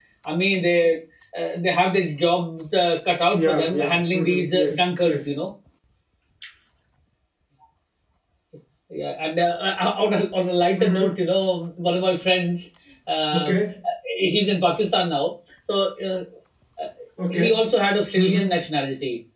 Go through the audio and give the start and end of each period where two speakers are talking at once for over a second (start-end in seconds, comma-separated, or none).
3.3-5.3